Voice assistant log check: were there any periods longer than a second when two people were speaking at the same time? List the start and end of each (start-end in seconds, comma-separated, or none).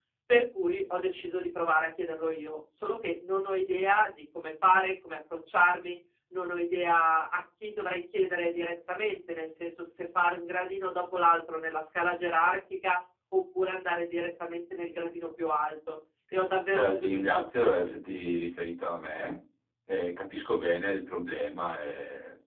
16.7-17.9